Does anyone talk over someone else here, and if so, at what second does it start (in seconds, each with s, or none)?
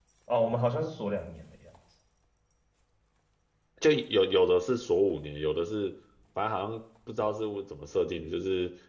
none